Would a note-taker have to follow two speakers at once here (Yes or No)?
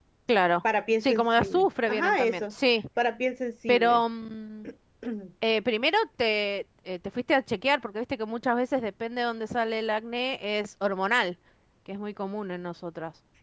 Yes